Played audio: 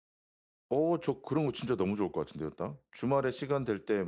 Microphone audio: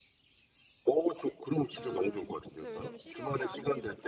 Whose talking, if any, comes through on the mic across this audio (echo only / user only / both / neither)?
both